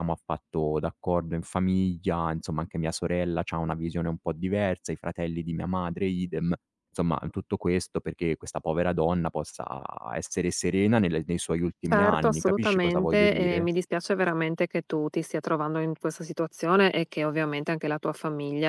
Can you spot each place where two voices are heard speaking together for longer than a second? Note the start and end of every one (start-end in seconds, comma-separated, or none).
11.8-13.7